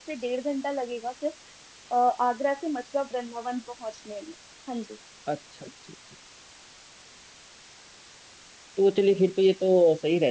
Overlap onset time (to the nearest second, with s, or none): none